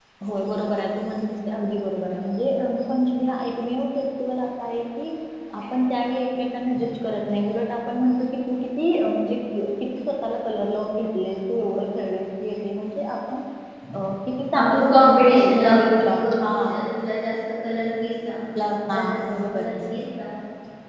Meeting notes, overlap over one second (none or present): present